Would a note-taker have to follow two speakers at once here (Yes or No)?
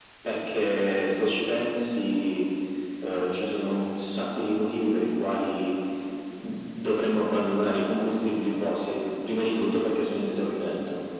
No